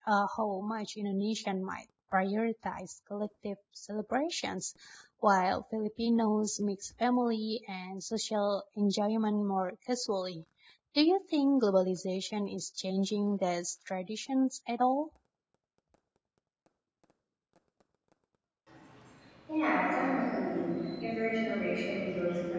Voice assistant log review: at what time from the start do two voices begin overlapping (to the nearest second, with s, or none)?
none